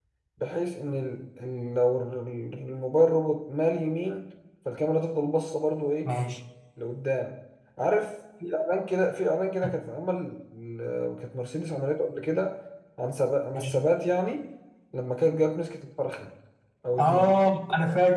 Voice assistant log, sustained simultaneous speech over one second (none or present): none